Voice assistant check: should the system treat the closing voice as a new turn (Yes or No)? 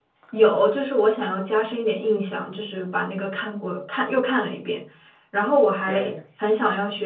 No